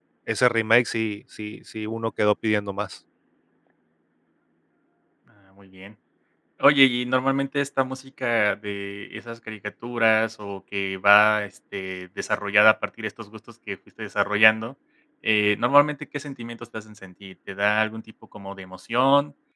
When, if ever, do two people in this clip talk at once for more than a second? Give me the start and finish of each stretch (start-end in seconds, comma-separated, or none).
none